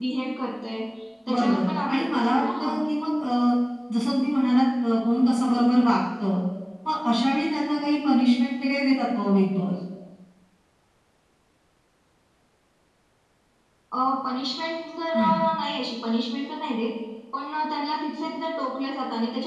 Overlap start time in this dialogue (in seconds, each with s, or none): 1.3 s